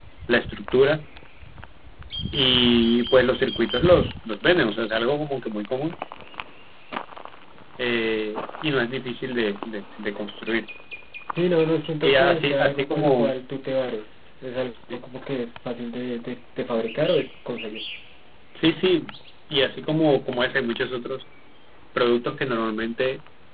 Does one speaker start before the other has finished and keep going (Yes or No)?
Yes